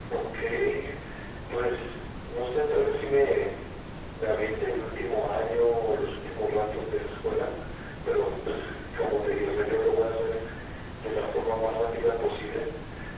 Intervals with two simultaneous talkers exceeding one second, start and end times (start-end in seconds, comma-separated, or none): none